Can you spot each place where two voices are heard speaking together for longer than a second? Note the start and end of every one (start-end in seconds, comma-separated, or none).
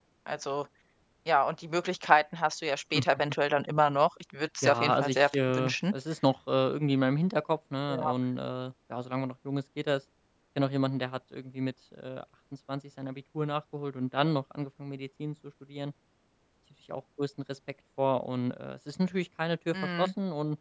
4.6-5.9